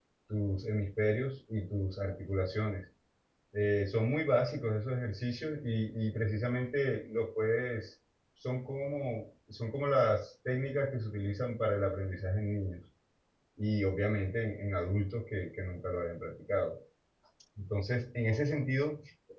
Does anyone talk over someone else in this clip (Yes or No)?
No